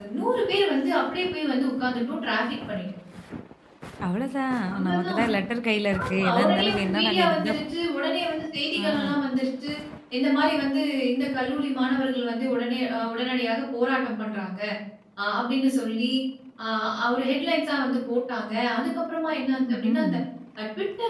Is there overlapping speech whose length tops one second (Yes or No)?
Yes